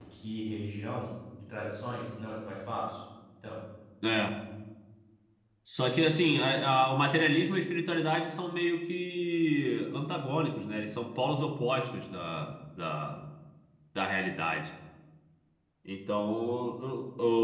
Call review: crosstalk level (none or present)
none